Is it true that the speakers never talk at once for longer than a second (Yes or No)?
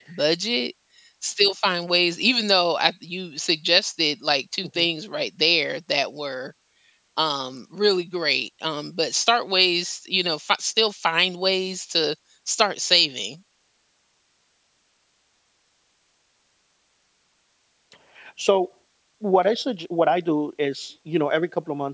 Yes